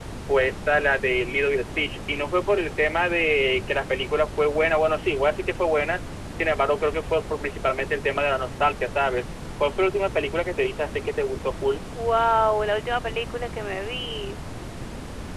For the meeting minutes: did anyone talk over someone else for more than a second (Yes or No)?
No